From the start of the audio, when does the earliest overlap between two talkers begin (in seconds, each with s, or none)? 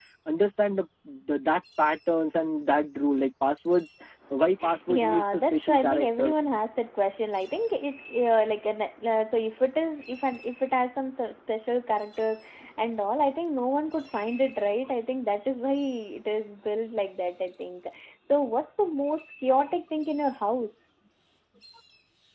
4.9 s